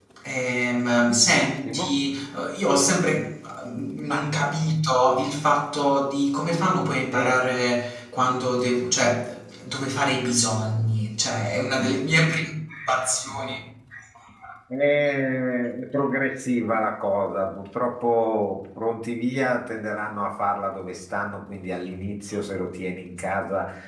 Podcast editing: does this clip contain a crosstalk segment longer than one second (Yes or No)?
No